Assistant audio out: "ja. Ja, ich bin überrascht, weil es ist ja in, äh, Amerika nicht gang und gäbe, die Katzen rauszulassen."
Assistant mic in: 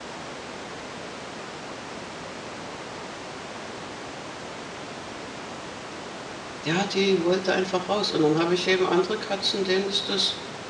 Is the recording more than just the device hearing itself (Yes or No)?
Yes